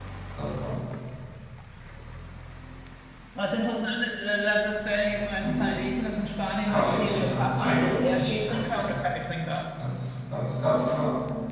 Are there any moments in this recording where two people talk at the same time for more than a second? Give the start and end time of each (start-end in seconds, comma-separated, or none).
6.7-9.0